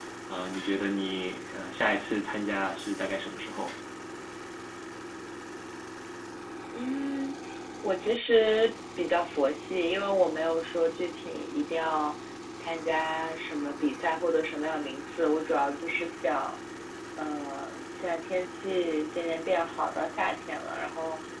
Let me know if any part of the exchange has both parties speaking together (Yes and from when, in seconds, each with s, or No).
No